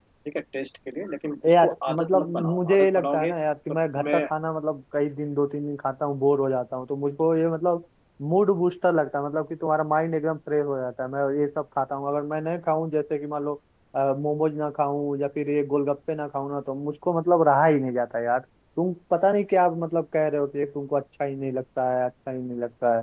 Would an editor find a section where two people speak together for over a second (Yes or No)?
Yes